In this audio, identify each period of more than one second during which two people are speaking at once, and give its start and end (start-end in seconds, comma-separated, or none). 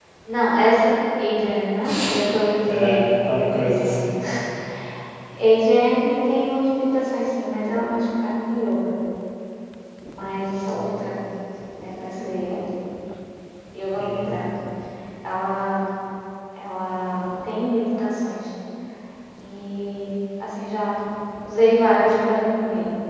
2.7-4.1